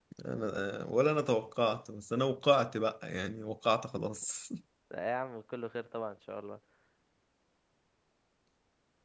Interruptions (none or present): none